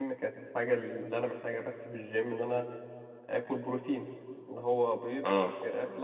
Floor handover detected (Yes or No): No